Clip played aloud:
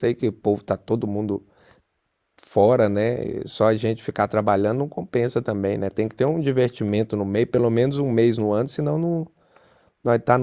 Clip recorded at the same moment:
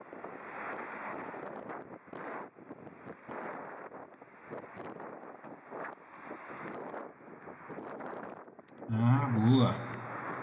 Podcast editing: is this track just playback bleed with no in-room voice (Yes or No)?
No